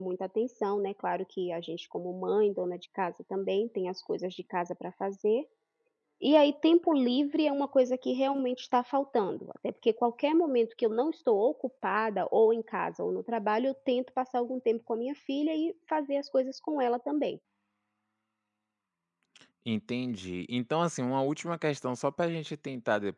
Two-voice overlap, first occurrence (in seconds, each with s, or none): none